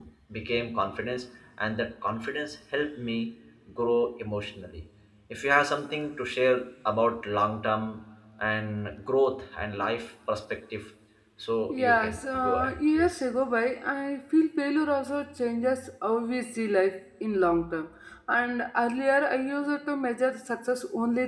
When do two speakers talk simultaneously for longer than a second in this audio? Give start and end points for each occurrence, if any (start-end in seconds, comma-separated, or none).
11.7-13.2